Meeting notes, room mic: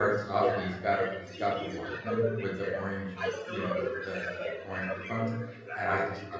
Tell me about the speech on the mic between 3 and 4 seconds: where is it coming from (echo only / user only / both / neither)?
both